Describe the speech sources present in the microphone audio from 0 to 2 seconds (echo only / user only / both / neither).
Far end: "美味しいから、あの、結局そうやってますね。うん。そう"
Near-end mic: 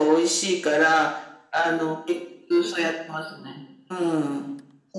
echo only